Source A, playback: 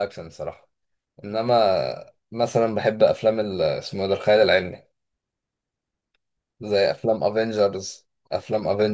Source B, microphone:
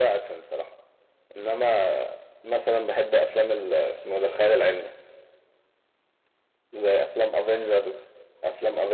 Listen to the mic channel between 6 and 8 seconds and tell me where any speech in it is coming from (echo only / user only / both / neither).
echo only